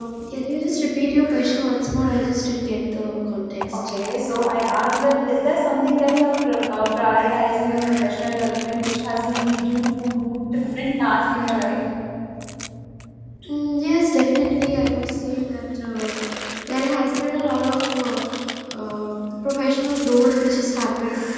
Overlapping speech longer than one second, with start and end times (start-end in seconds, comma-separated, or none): none